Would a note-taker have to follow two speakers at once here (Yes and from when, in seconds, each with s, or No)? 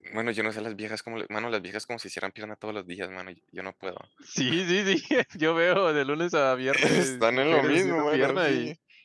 Yes, from 6.7 s